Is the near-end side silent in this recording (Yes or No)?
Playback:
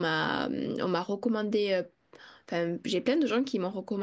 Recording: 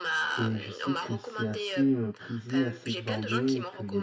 No